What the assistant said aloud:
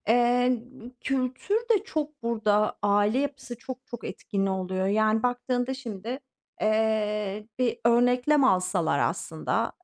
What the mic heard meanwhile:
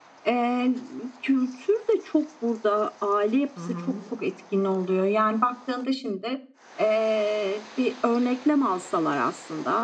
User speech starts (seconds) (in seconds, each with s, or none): 3.6 s